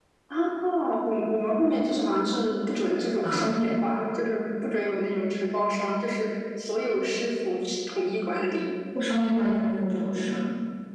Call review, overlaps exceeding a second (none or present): none